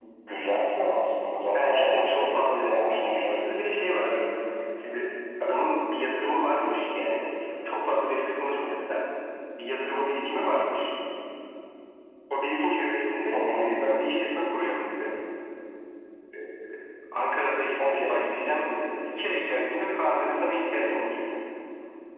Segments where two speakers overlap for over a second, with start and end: 1.5-3.3

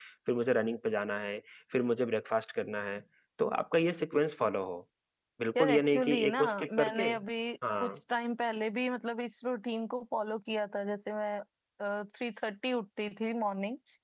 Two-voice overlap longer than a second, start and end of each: 5.6-7.0

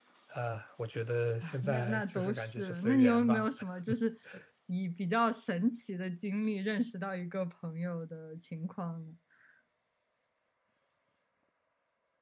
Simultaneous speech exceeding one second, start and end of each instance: 1.4-3.5

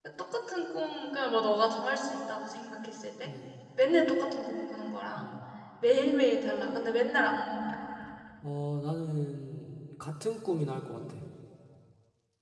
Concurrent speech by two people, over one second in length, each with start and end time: none

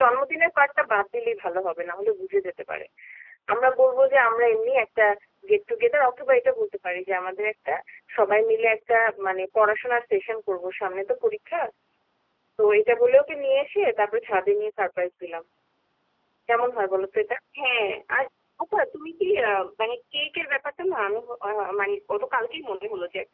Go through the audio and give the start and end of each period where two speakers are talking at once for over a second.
none

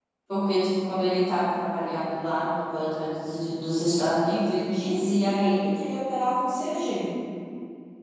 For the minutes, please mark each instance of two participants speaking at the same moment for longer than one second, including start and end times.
none

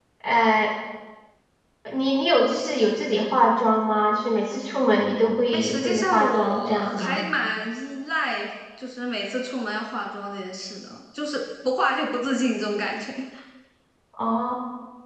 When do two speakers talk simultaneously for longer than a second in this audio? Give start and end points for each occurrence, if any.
5.5-7.2

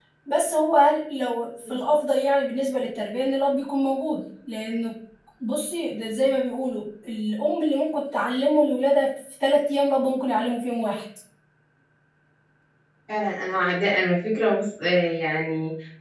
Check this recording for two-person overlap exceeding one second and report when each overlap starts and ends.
none

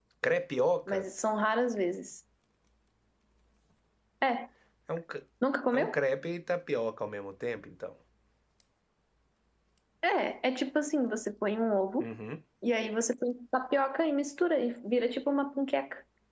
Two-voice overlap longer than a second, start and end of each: none

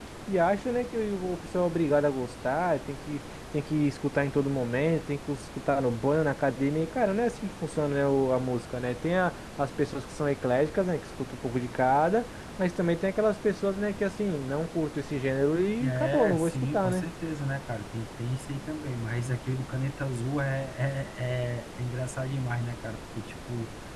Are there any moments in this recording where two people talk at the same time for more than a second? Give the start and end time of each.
15.8-17.1

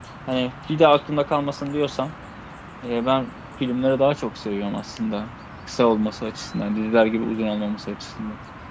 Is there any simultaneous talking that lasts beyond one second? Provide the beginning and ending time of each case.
none

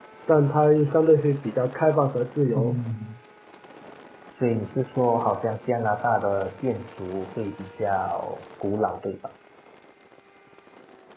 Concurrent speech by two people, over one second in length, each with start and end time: none

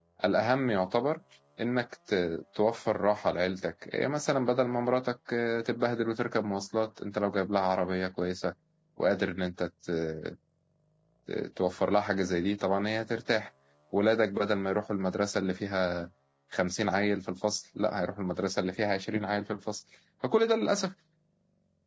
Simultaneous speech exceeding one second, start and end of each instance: none

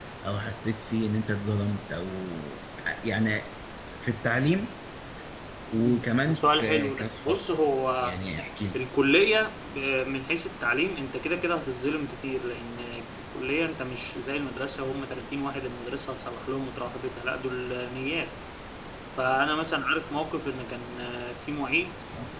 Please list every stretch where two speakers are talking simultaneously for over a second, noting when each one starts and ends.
5.7-7.4

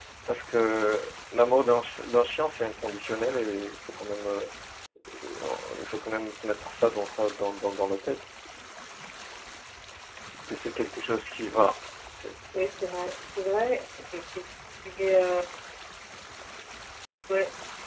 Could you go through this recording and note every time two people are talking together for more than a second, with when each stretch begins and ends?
none

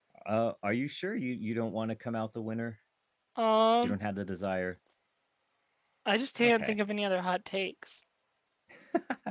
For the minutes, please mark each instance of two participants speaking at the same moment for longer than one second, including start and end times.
none

